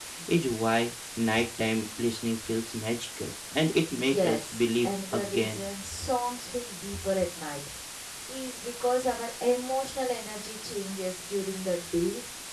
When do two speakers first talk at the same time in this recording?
3.9 s

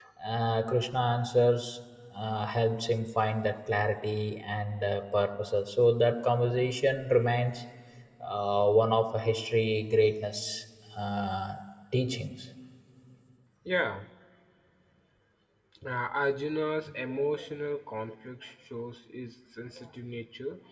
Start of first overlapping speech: none

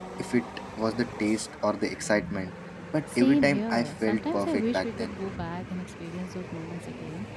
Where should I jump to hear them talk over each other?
3.1 s

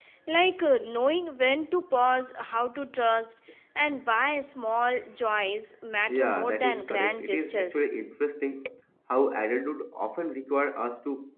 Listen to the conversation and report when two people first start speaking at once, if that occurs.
6.1 s

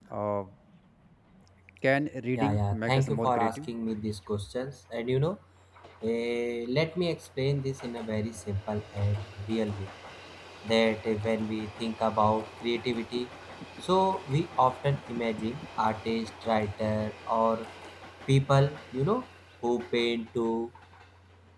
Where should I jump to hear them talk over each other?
2.4 s

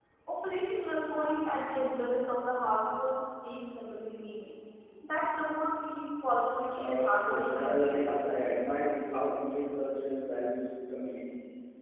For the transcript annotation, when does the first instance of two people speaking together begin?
6.7 s

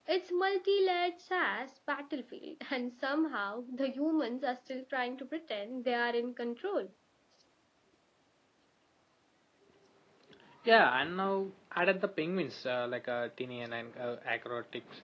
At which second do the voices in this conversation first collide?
none

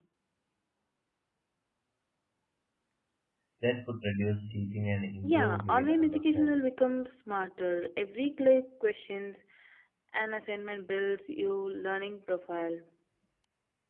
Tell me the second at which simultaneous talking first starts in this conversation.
5.2 s

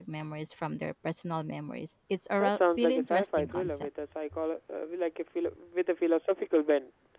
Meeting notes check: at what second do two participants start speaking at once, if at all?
2.4 s

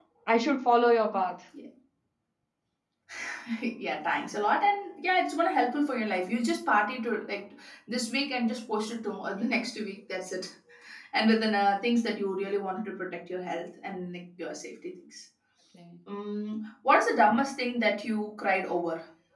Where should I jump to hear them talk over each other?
none

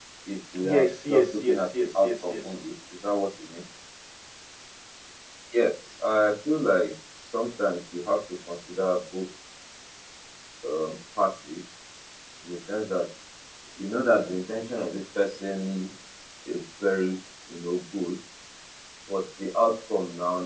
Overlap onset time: 0.6 s

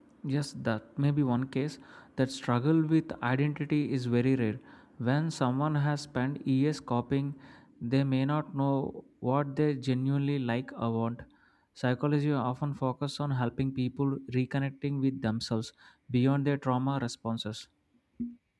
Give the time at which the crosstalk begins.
none

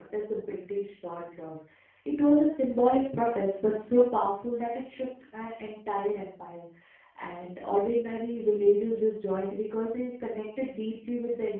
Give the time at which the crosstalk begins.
none

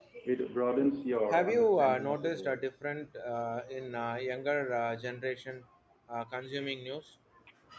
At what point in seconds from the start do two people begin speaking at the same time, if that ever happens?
1.3 s

